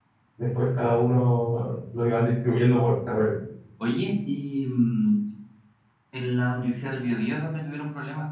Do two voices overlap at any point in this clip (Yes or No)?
No